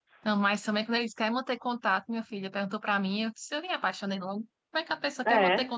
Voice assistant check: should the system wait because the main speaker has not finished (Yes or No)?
Yes